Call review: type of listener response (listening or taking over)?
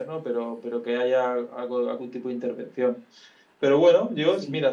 listening